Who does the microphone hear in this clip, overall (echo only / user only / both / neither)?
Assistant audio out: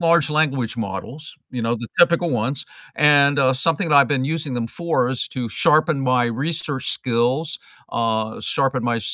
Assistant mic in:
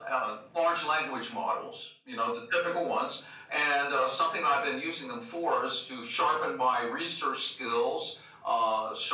echo only